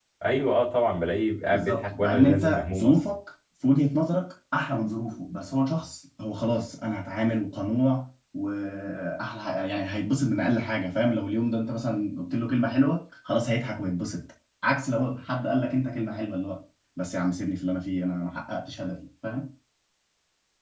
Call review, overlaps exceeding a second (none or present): present